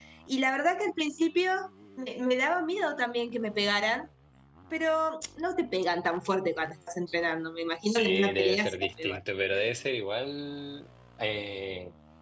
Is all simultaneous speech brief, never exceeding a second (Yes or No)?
No